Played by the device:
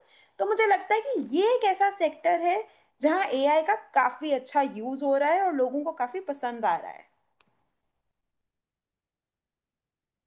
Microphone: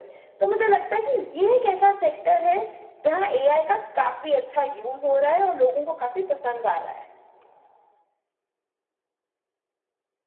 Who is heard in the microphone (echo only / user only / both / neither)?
echo only